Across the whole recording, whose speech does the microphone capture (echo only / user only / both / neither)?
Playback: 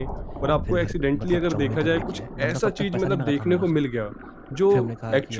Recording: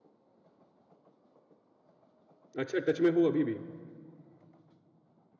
user only